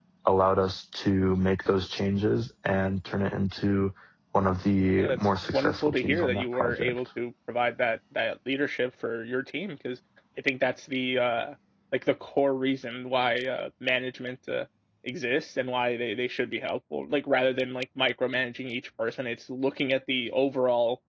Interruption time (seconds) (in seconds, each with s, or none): 4.9 s